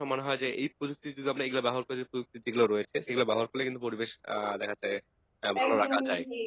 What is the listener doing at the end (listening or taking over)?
taking over